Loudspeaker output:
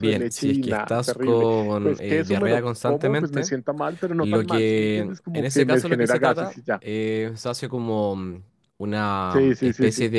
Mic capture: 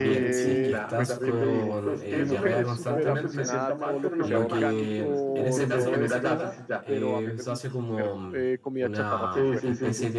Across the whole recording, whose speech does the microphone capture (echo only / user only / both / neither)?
both